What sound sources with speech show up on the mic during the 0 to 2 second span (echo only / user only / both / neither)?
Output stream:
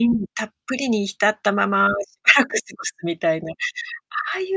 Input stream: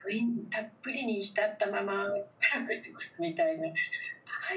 echo only